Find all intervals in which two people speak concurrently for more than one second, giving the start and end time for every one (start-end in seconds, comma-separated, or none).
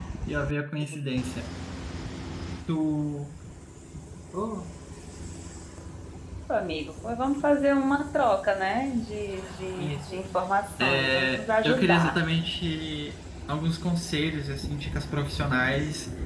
10.8-12.2